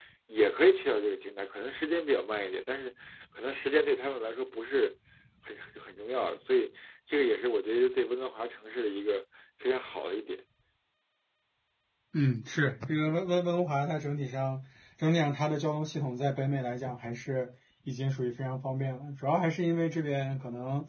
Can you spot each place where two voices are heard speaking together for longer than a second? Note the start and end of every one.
none

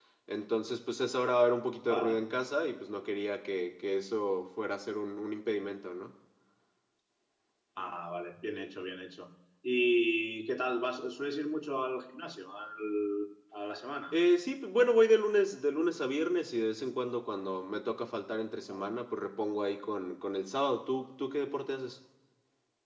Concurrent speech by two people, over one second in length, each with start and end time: none

